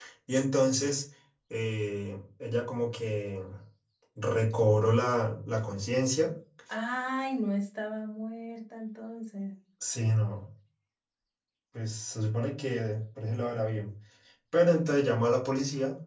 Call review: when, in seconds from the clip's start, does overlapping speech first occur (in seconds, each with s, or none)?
none